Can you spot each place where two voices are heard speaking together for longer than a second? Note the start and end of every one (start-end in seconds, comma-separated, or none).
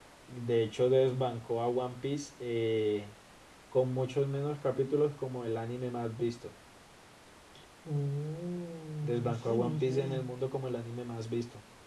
9.0-10.2